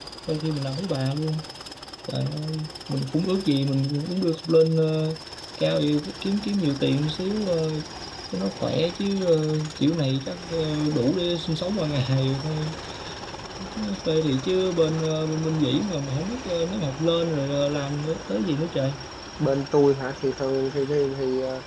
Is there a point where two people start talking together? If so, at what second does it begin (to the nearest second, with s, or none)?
none